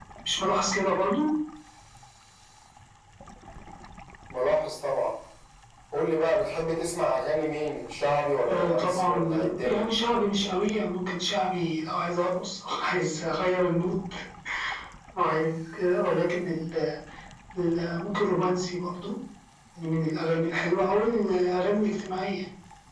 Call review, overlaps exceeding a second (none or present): present